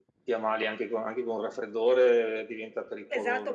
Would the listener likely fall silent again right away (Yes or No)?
No